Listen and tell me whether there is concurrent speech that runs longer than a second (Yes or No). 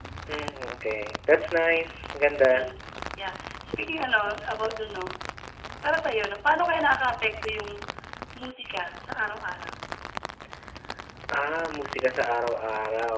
No